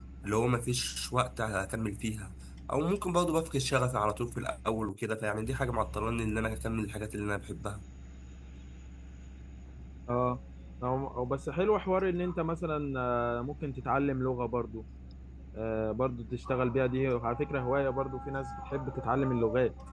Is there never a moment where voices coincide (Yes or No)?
Yes